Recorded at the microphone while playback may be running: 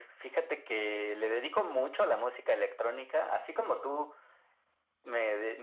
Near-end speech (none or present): none